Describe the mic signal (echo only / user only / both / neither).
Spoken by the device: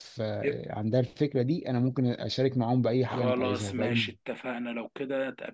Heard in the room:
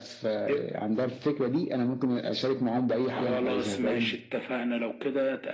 echo only